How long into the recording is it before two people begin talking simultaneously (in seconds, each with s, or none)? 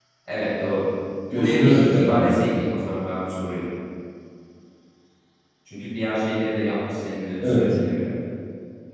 1.3 s